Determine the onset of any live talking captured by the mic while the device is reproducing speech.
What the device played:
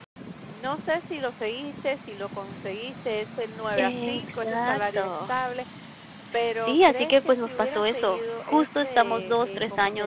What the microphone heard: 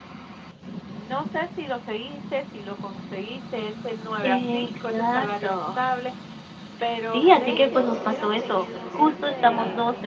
7.2 s

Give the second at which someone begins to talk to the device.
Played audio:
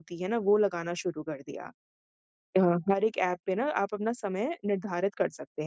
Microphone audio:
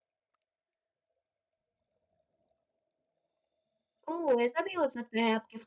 4.1 s

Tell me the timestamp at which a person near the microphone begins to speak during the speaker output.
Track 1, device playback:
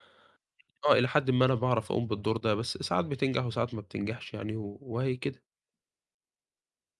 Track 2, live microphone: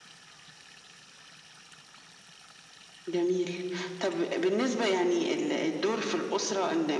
3.1 s

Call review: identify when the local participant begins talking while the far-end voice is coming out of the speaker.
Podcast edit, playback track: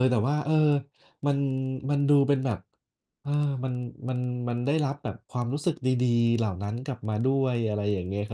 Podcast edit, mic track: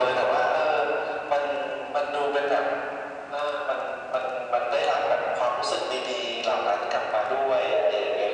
none

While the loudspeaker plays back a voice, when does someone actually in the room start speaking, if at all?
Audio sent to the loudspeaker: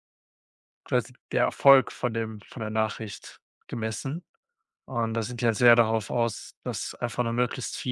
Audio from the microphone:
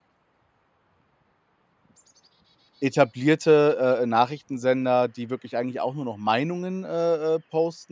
2.8 s

